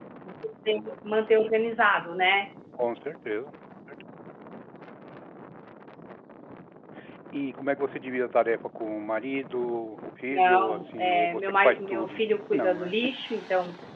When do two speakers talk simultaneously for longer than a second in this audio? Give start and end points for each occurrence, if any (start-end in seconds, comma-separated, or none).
10.3-12.9